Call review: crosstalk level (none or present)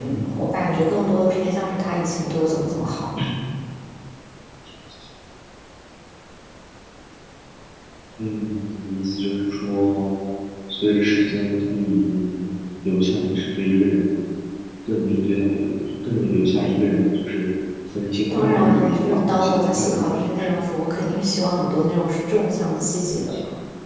present